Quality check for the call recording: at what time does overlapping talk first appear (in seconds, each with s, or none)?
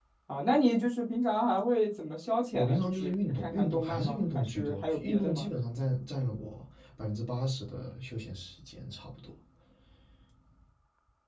2.5 s